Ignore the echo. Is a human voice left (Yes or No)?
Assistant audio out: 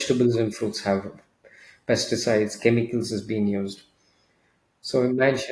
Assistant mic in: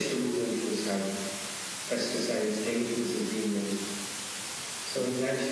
No